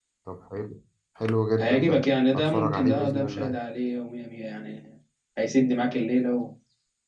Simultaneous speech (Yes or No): Yes